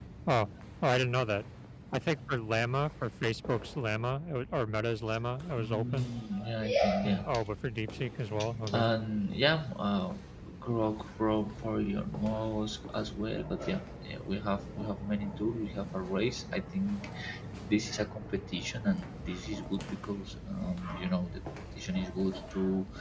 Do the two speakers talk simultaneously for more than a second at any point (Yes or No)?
No